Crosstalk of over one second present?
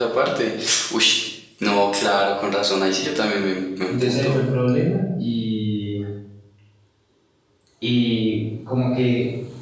No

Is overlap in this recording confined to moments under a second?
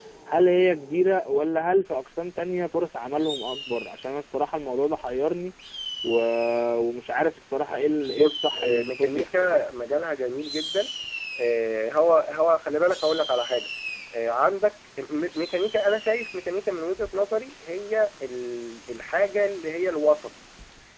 No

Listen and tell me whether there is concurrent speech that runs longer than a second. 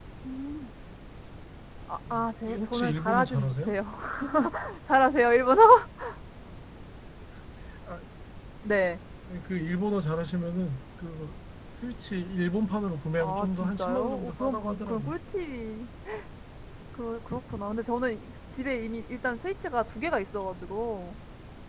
Yes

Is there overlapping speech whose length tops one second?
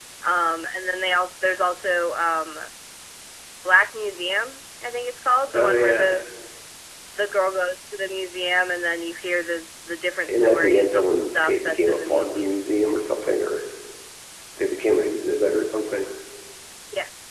Yes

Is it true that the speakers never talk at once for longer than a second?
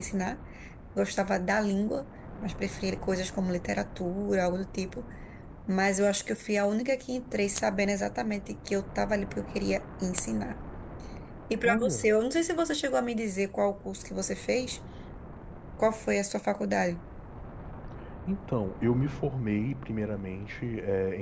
Yes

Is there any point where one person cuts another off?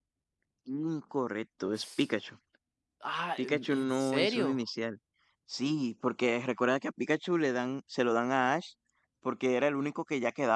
Yes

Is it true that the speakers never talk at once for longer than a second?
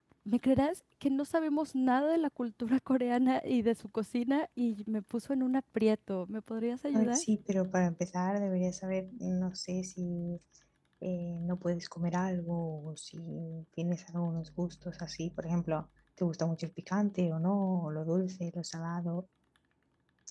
Yes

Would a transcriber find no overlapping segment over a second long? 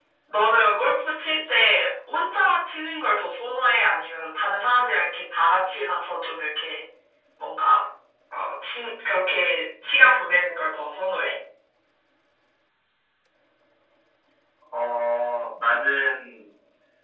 Yes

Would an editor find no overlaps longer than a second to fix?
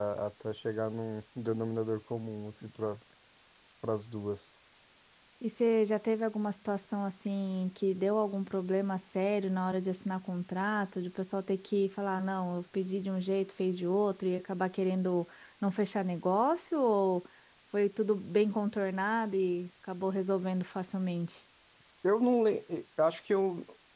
Yes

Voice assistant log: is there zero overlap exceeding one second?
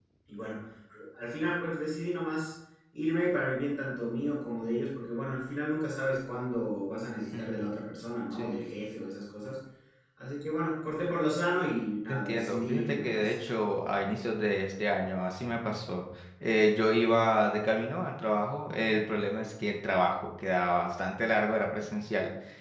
No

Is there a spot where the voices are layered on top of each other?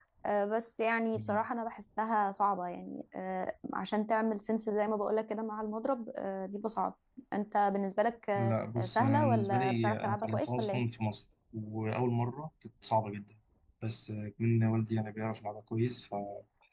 Yes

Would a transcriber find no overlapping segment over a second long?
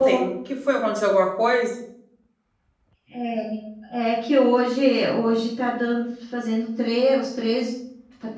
Yes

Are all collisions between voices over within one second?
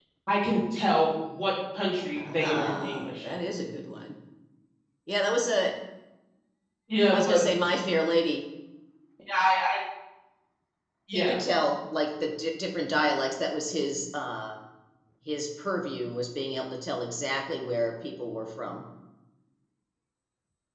No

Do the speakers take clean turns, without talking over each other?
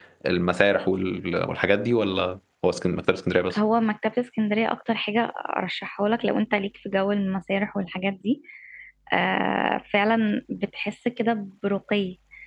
Yes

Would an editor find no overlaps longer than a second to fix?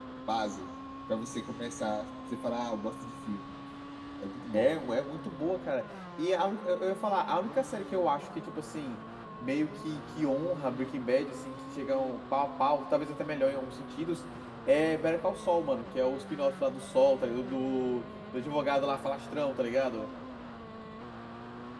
Yes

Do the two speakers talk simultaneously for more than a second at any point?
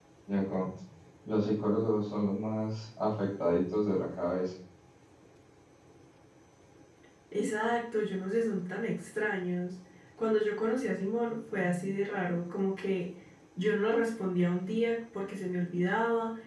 No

